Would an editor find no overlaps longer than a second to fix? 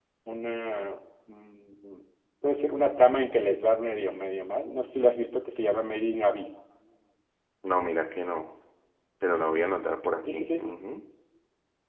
Yes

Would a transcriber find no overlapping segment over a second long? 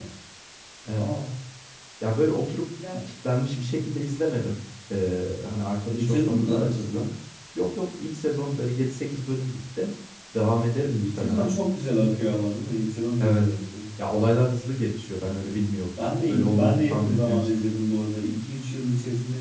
No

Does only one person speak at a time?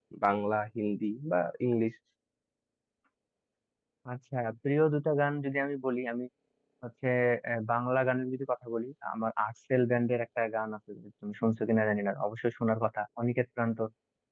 Yes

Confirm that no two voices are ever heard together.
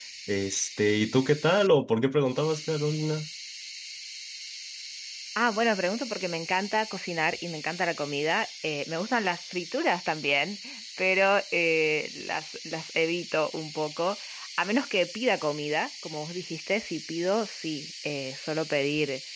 Yes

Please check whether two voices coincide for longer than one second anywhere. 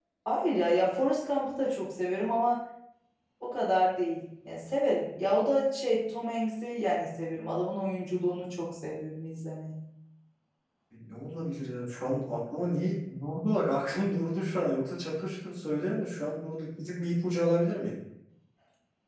No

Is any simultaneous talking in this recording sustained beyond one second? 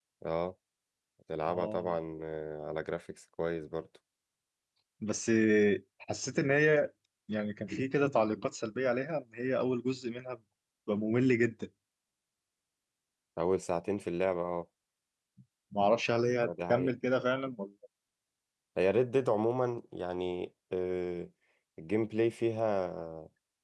No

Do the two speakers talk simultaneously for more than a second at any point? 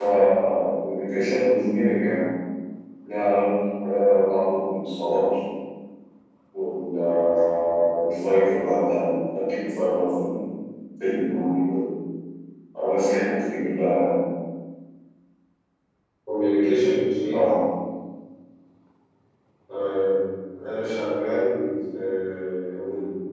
No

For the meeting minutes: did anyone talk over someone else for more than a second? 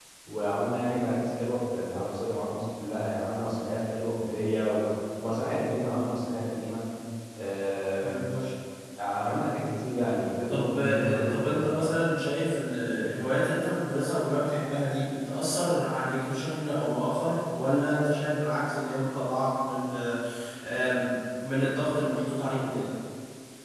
Yes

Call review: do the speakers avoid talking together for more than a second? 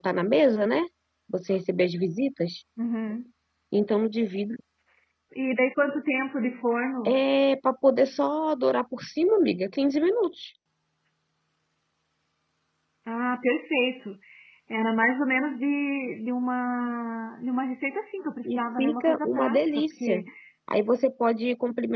No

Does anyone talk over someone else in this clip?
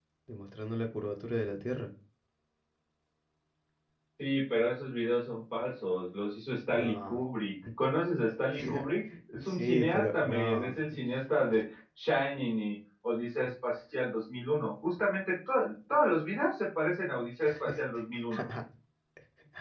Yes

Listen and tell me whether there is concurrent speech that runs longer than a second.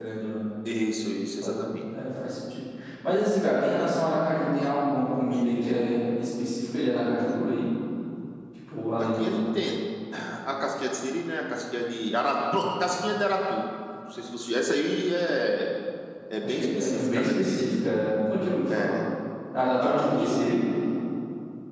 Yes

